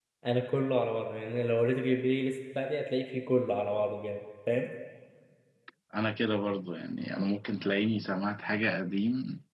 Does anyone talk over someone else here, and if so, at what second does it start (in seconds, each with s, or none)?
none